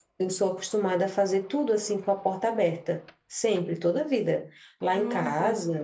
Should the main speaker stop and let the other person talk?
No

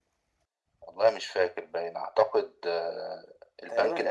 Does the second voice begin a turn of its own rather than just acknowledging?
Yes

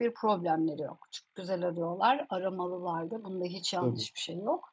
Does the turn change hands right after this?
No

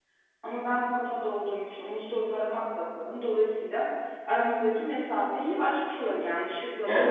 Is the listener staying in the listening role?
No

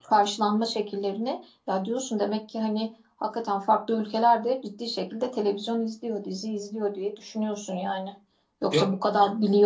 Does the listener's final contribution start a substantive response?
No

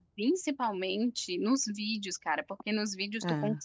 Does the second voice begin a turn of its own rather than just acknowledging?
No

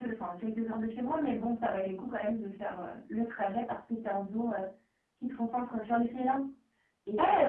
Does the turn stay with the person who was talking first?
No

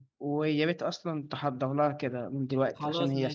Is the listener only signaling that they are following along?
No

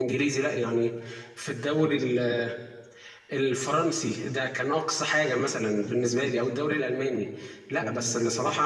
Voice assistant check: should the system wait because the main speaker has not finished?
Yes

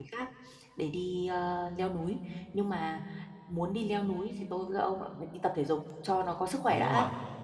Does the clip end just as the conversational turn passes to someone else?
Yes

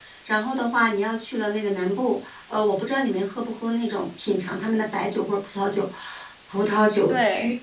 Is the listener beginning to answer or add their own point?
No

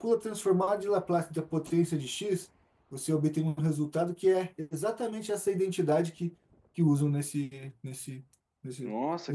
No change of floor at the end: No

